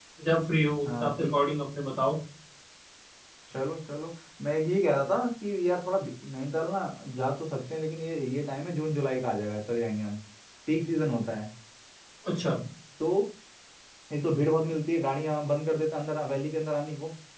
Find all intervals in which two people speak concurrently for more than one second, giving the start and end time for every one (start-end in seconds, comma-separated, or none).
none